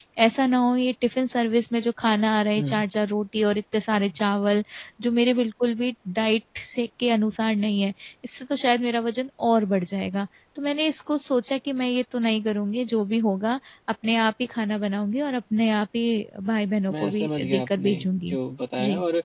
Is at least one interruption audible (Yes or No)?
Yes